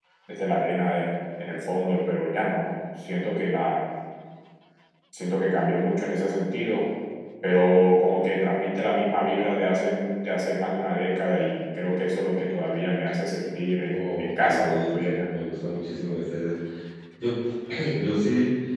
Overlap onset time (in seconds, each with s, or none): 13.8 s